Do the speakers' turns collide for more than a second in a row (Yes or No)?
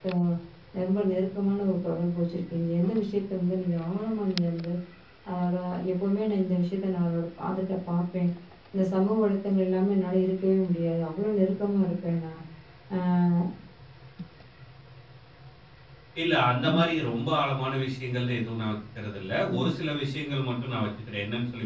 No